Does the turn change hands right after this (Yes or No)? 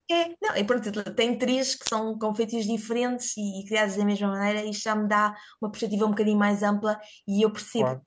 No